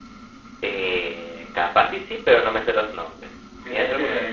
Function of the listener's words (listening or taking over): taking over